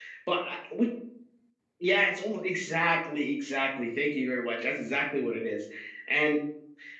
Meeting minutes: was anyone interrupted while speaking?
No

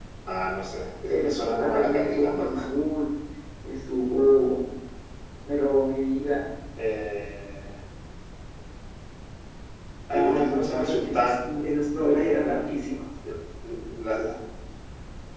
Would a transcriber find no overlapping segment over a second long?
No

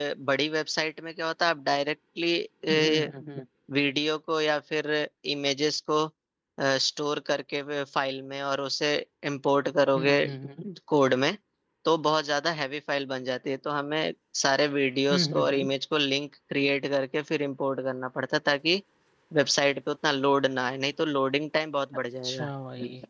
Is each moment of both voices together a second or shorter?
Yes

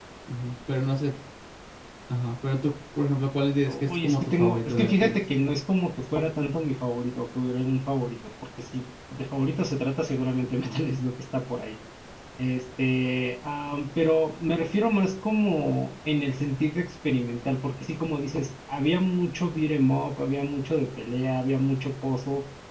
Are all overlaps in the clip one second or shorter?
No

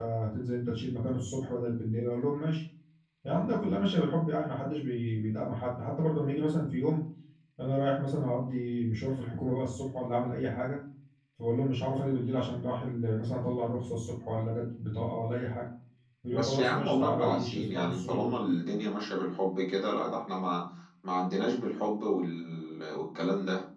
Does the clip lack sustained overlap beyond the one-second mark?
No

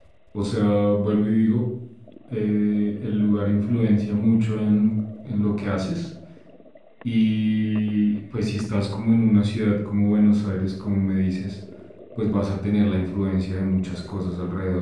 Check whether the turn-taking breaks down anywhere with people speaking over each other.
No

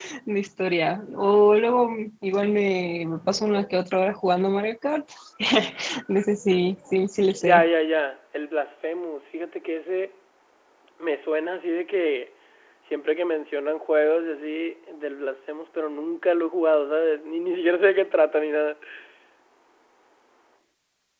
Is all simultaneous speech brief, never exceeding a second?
Yes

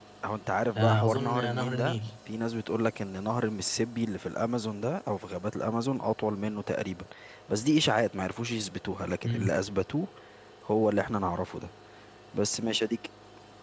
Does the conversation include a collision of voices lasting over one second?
Yes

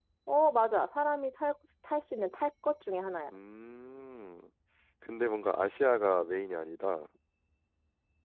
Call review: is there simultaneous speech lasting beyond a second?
No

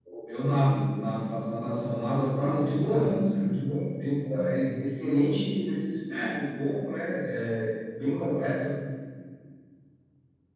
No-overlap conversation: No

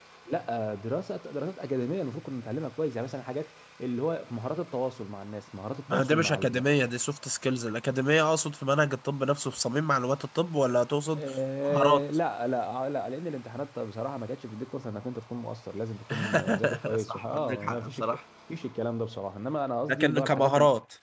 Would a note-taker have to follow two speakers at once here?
Yes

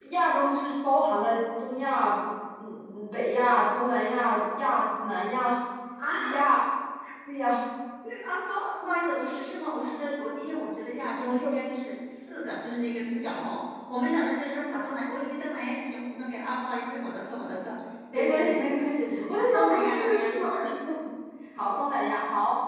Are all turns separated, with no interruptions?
No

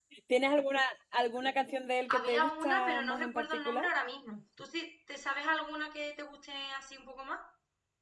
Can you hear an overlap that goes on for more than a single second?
Yes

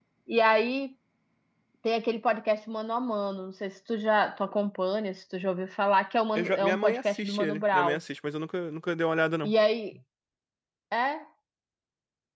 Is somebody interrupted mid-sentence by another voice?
Yes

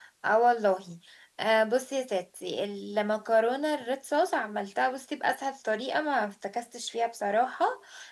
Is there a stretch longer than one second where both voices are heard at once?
No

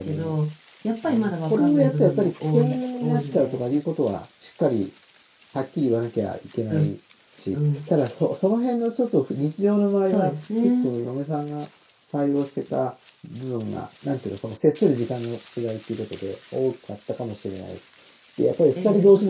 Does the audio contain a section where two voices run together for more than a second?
Yes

